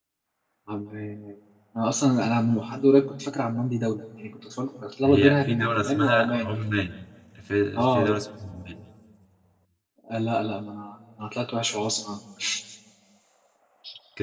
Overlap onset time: 5.0 s

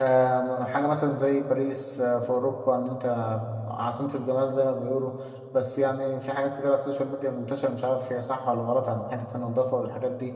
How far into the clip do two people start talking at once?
none

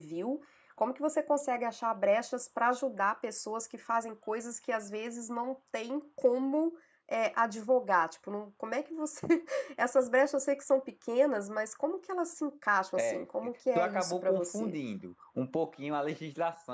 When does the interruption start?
12.9 s

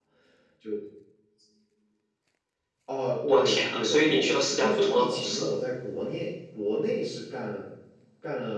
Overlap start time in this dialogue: 3.3 s

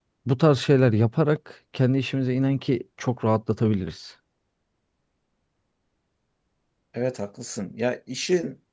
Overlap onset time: none

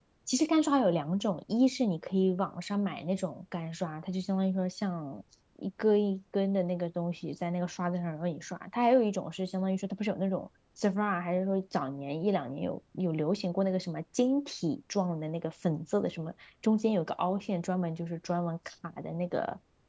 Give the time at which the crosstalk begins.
none

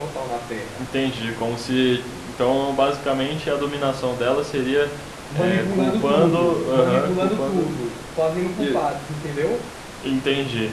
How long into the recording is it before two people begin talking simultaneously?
5.3 s

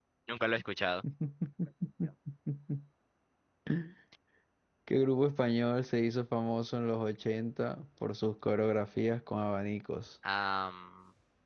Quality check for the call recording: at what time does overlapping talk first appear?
none

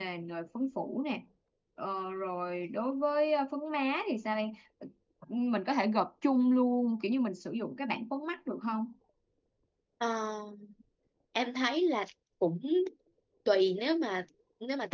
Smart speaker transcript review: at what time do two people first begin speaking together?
none

